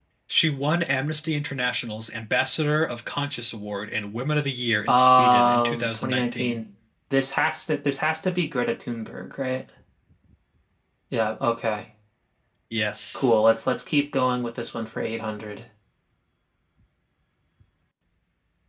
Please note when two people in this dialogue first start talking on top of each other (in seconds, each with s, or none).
4.9 s